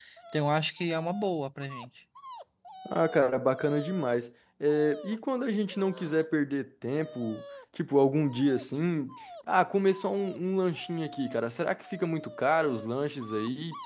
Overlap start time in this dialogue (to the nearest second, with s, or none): none